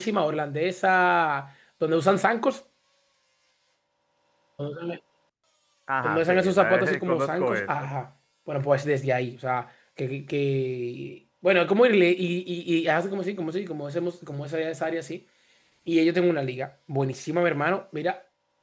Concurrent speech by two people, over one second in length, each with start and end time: 6.0-7.7

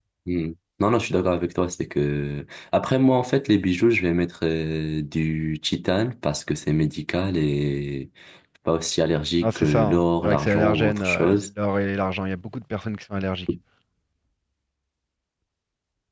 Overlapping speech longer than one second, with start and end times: 9.4-11.5

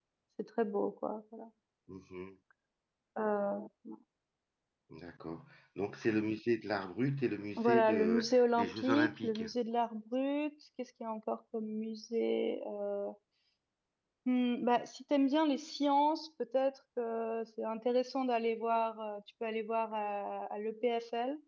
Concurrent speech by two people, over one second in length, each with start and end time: 7.6-9.4

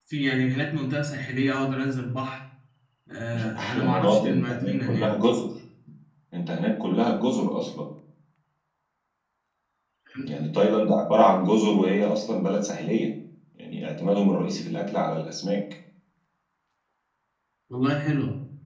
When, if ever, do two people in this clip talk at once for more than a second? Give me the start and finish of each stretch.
3.3-5.1

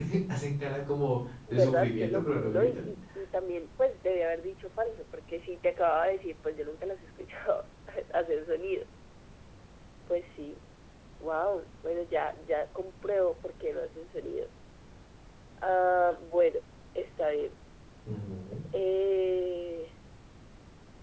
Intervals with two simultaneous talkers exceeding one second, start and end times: 1.5-2.9

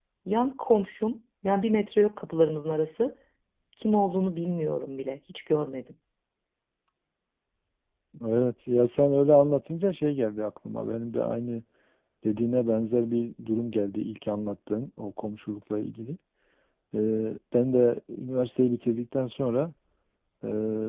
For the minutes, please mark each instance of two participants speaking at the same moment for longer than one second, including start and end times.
none

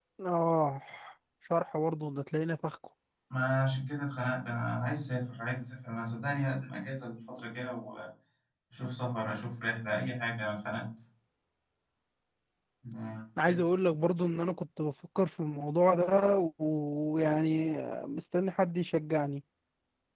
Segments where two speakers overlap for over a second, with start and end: none

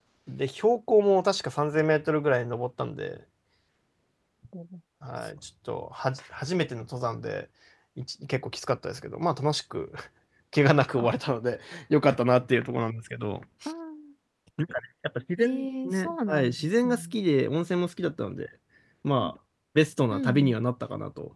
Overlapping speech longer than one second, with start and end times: 15.4-17.1

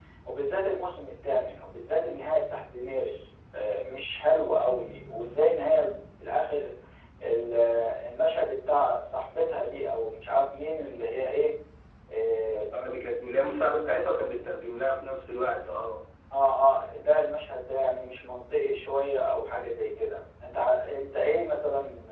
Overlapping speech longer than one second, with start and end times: none

